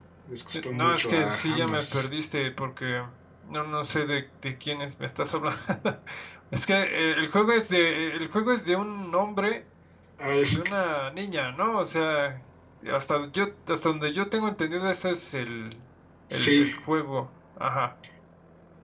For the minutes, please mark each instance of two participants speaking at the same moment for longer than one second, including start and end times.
0.5-2.1

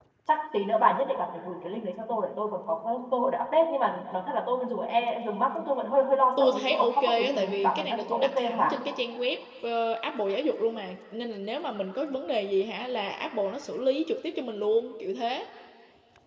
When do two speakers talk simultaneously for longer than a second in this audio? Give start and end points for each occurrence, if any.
6.4-8.8

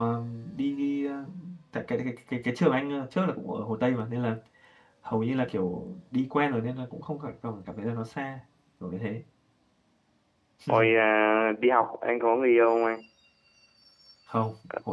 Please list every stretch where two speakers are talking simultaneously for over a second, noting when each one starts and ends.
none

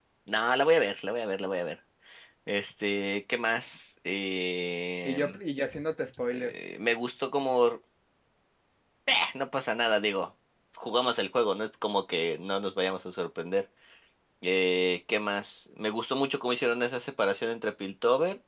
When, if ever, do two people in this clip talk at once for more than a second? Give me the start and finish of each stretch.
none

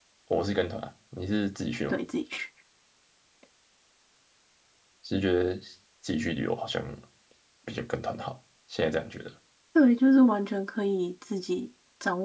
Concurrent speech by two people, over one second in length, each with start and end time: none

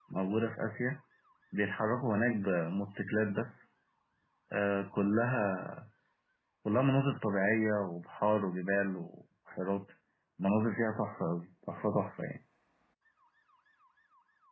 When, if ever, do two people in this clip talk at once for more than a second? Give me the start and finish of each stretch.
none

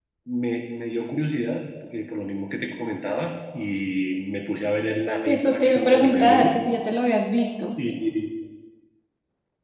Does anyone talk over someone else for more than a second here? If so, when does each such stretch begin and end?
5.3-6.6

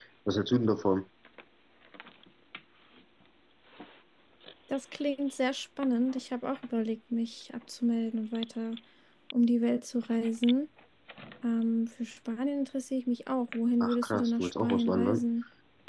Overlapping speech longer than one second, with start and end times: 13.8-15.2

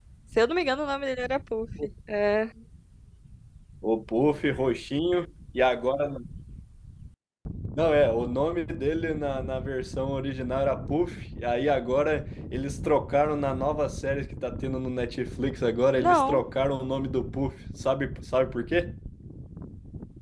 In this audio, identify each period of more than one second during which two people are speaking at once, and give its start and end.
none

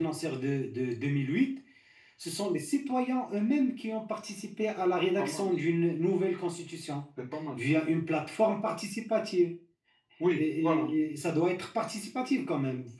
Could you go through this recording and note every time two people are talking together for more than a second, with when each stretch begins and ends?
none

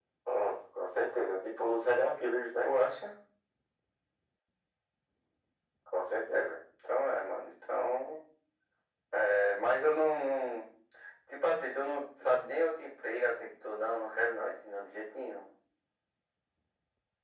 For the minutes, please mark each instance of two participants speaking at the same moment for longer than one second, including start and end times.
none

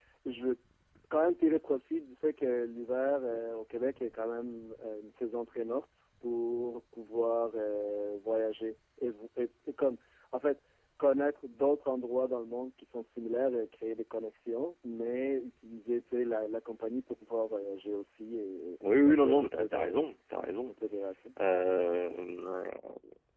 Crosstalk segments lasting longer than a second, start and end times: 18.8-20.0

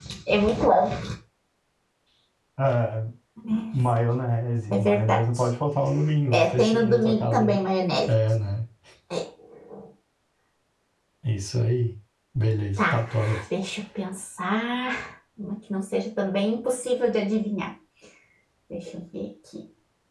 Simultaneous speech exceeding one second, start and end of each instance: 6.3-7.6

